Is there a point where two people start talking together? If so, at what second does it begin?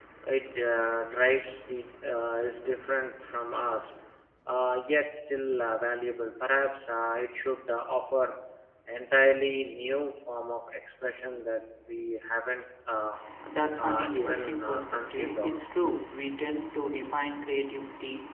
13.8 s

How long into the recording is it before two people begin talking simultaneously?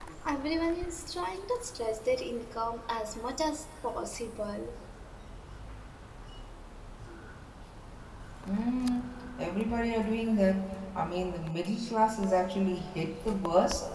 none

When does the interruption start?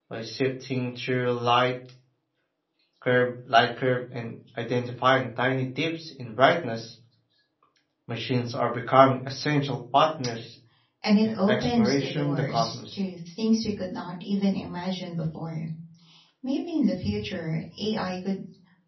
11.2 s

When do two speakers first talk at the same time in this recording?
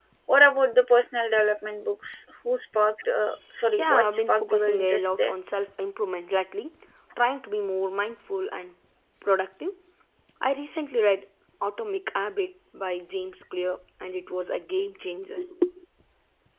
3.8 s

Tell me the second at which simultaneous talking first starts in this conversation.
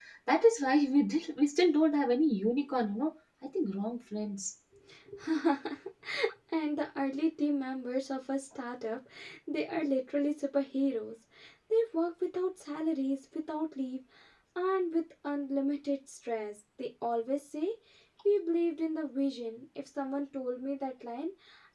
none

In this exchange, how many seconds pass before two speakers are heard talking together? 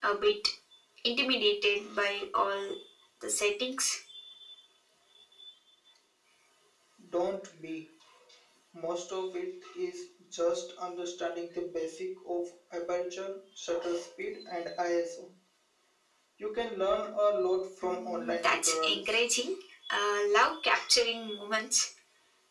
17.8 s

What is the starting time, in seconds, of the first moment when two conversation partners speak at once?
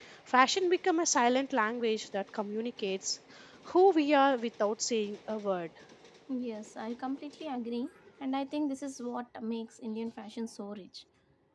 none

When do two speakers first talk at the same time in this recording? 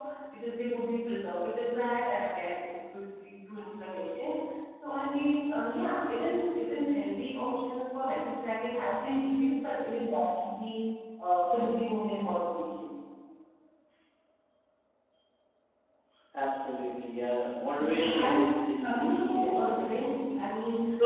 17.8 s

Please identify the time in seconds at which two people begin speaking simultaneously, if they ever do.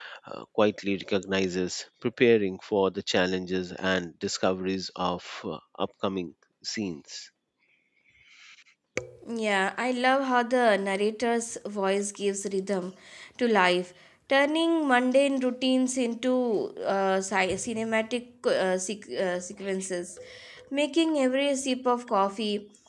none

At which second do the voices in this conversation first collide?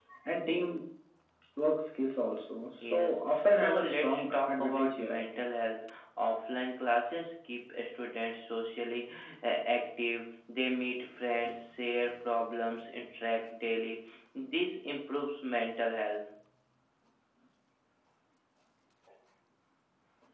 2.8 s

